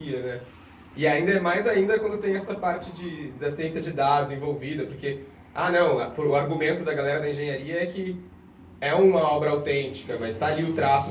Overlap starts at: none

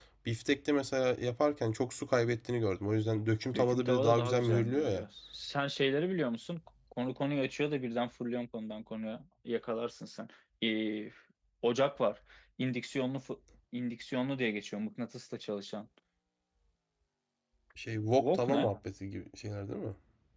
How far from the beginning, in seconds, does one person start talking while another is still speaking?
3.5 s

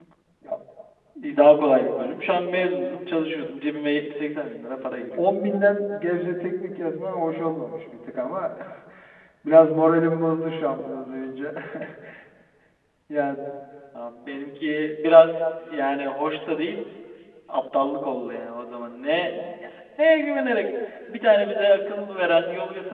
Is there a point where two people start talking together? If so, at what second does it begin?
none

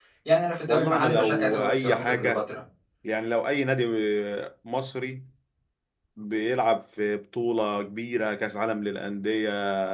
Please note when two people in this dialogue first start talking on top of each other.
0.7 s

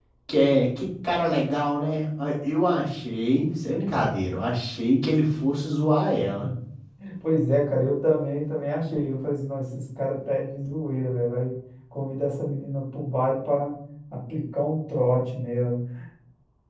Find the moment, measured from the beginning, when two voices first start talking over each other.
none

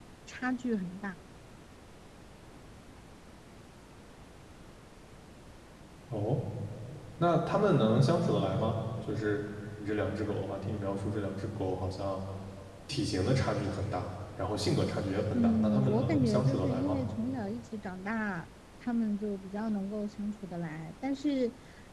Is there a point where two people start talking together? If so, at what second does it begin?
15.3 s

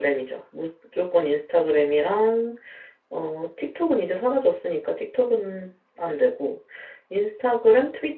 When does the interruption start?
none

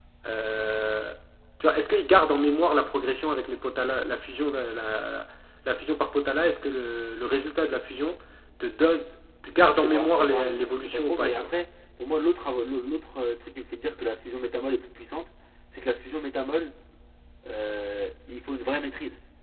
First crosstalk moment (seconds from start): 9.7 s

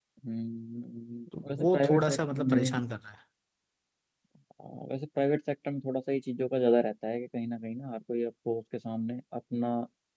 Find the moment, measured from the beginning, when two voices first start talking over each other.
1.3 s

